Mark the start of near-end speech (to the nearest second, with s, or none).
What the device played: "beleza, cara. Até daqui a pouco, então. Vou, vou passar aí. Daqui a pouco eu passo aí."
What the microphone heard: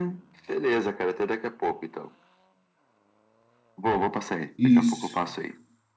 5 s